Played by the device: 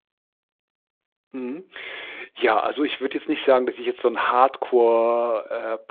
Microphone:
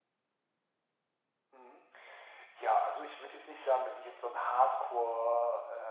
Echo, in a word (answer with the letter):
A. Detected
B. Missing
A